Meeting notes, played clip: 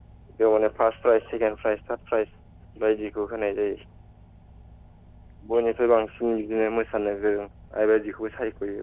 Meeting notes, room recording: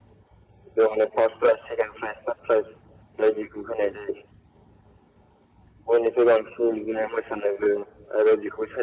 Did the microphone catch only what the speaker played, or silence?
Yes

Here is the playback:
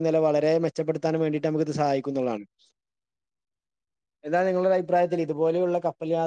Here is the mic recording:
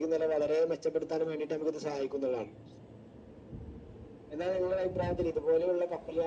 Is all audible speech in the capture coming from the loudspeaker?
Yes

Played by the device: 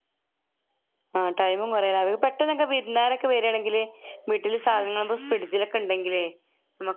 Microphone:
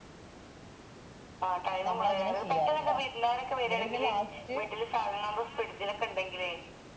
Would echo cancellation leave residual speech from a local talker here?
Yes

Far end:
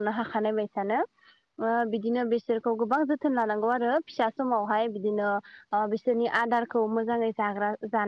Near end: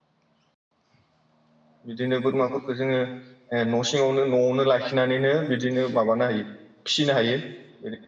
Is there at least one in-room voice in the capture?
Yes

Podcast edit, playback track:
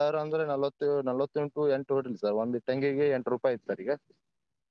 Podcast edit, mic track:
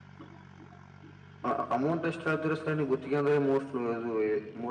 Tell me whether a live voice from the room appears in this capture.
Yes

